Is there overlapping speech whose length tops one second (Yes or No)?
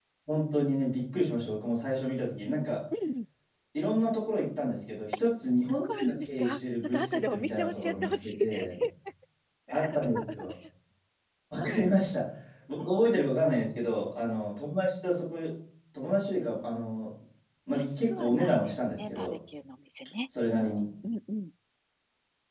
Yes